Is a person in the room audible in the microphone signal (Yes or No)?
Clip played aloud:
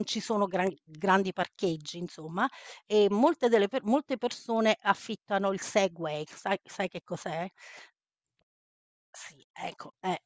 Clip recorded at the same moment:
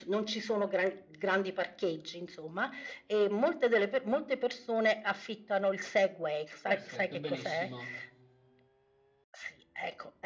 Yes